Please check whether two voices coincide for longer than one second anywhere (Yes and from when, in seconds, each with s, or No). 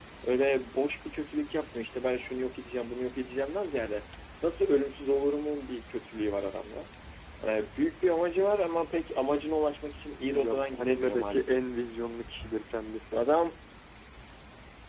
Yes, from 10.3 s